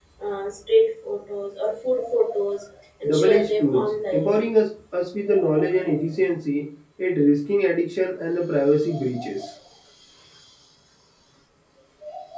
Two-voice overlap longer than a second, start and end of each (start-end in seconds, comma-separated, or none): 3.0-4.3